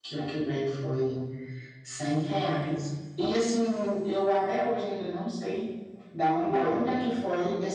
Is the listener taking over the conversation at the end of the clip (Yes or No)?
No